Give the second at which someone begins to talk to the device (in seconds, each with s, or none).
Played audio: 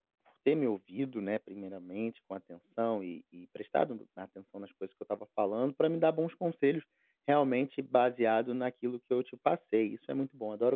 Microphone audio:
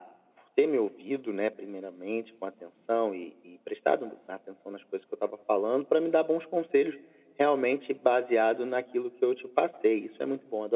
none